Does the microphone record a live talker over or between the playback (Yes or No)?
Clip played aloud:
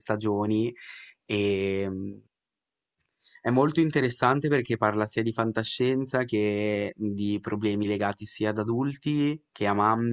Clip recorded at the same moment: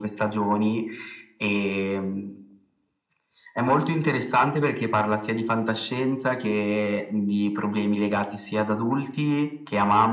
No